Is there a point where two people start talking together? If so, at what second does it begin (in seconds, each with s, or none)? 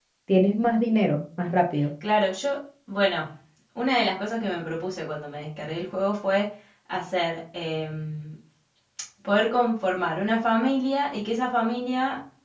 none